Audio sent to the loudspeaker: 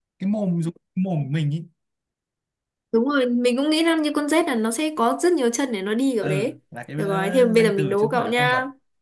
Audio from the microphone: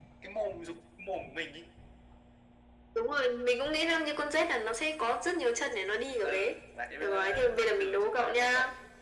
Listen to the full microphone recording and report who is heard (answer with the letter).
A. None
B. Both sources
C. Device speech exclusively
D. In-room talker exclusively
C